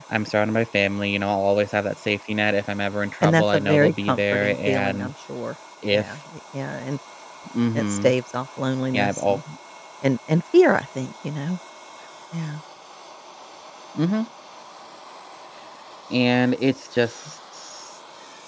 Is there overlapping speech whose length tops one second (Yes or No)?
Yes